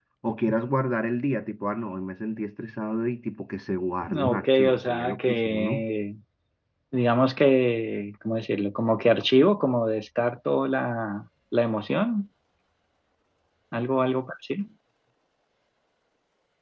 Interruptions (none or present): present